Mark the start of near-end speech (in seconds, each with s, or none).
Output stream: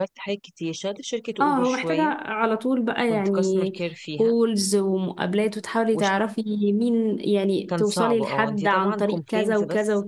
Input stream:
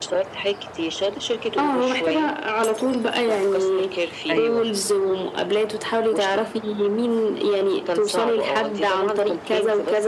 4.3 s